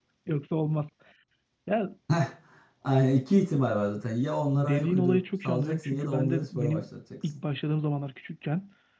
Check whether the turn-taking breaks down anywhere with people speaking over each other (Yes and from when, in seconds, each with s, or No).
Yes, from 4.5 s